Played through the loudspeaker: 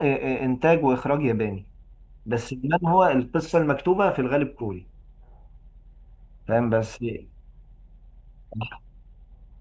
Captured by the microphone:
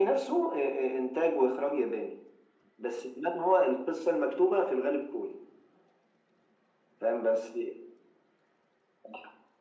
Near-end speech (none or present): none